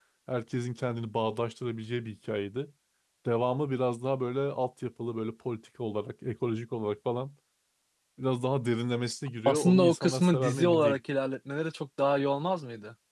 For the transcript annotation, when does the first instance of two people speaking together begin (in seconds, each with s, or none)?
9.4 s